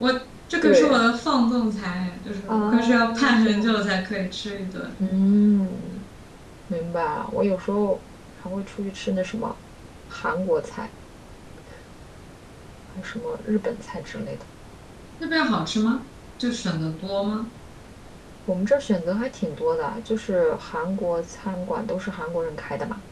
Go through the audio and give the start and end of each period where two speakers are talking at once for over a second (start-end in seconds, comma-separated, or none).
2.5-3.8